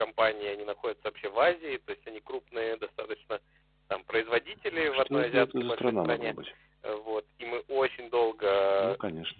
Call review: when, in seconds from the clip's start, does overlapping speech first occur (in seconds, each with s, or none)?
4.7 s